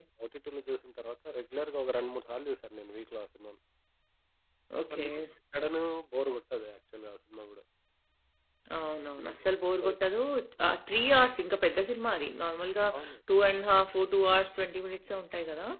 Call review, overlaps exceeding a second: none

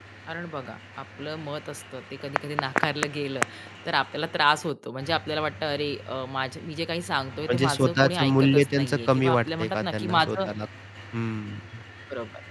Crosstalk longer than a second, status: present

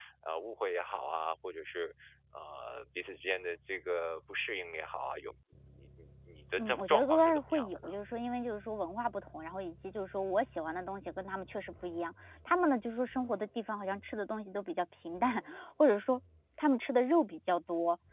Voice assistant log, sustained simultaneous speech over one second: present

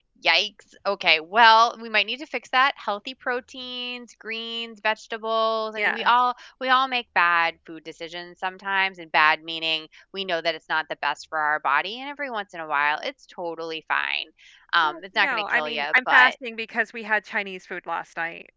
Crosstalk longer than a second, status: present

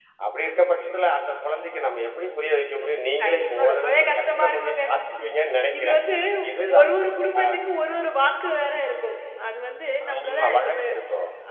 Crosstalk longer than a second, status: present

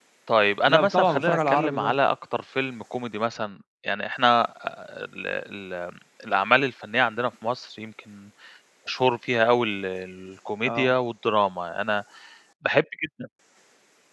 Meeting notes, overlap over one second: present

